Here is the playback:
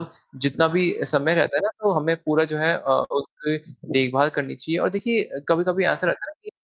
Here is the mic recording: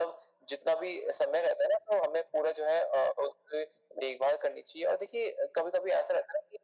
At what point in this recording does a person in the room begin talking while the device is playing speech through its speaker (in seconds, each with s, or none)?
none